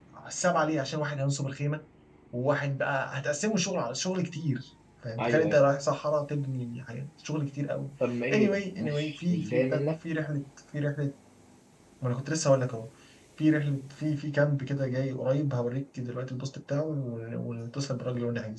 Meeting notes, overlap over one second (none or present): present